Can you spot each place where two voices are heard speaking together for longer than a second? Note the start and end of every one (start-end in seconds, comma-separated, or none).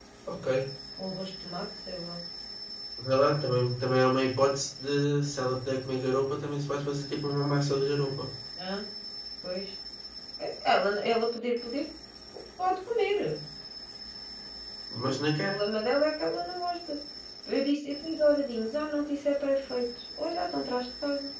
none